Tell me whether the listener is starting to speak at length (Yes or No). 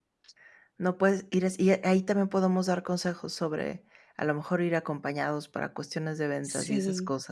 No